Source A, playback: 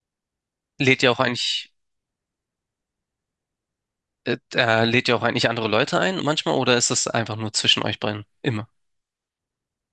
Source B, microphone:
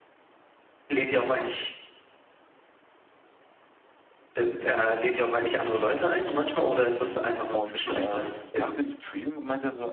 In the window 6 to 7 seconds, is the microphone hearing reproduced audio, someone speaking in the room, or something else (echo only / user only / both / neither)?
echo only